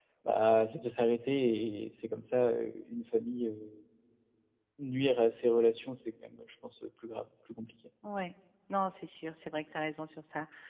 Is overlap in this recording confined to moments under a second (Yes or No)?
Yes